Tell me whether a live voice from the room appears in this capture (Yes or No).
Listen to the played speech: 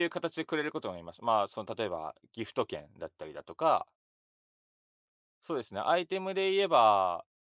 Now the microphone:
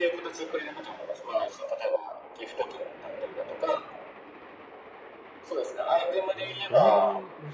Yes